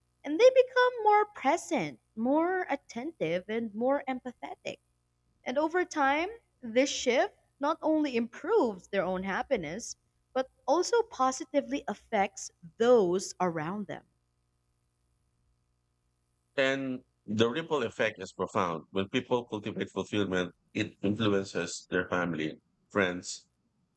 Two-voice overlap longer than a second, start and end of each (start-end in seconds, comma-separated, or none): none